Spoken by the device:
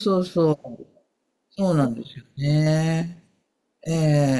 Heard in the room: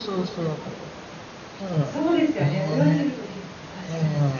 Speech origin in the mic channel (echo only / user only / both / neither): both